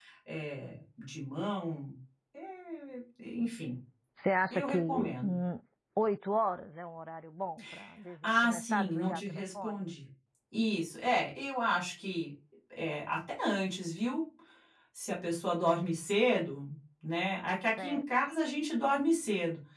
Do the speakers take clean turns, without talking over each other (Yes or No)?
No